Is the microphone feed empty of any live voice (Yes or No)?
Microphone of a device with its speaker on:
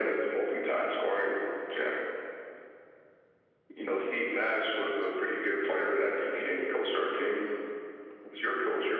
Yes